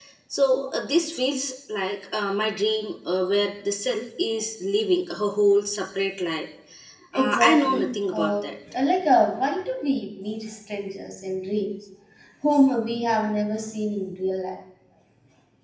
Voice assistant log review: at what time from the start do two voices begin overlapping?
7 s

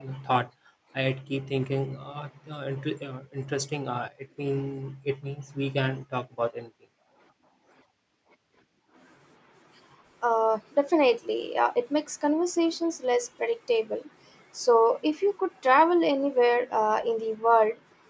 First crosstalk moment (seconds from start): none

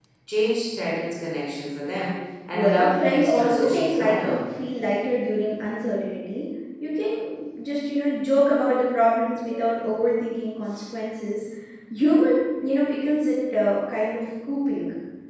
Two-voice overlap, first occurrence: 3 s

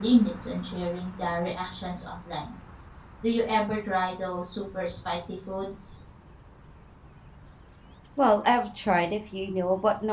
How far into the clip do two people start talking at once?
none

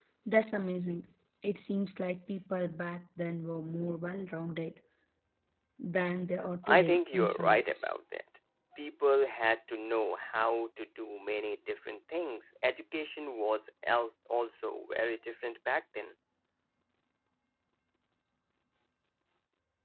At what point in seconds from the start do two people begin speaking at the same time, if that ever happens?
7 s

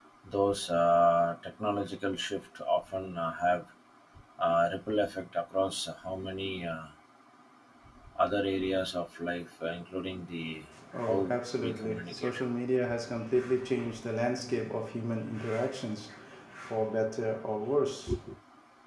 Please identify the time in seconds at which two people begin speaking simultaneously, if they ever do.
11 s

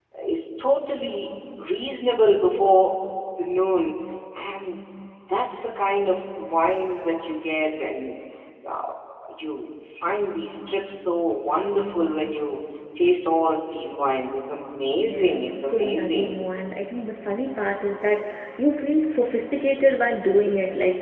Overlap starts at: 15 s

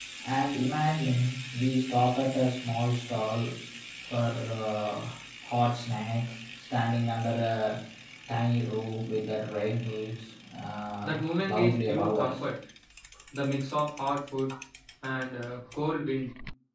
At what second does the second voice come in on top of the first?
11 s

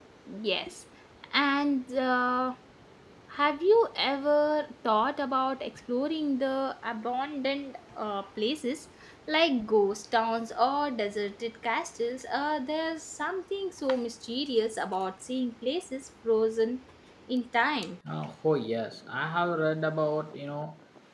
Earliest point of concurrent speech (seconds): none

